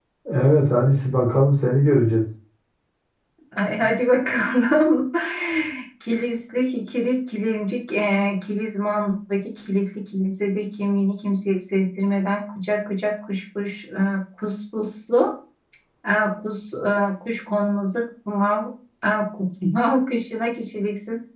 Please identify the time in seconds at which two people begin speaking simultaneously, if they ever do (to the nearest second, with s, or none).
none